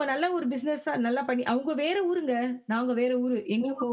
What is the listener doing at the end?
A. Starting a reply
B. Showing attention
A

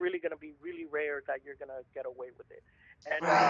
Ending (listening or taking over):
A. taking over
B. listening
B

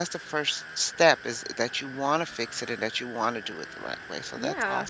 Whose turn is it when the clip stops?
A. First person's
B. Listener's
B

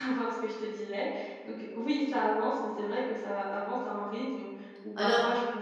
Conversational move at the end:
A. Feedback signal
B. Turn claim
A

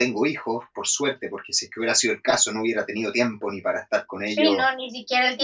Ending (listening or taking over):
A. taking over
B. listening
A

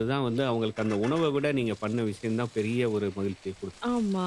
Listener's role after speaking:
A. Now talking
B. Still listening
A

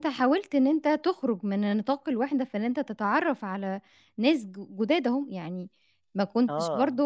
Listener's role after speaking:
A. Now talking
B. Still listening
B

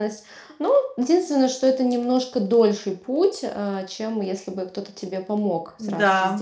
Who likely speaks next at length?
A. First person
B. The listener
B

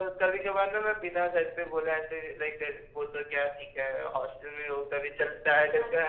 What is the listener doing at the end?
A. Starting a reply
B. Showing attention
A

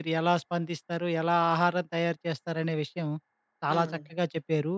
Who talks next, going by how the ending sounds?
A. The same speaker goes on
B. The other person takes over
A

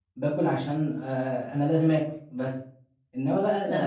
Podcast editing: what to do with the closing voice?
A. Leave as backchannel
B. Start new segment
A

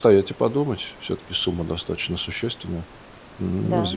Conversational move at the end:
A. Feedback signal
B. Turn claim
A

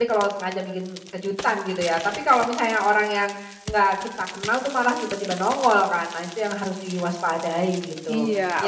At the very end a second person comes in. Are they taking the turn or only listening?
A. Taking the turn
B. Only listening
A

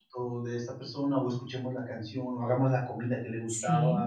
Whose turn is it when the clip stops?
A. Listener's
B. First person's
A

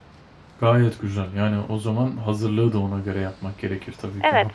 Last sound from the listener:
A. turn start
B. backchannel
A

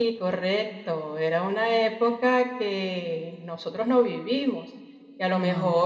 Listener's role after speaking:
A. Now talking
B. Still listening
B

